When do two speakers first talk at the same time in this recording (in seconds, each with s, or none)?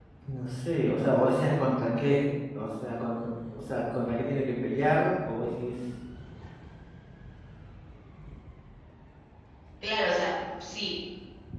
none